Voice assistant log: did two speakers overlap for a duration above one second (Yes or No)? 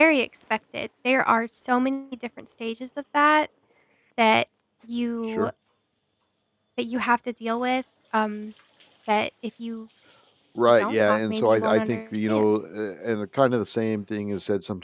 Yes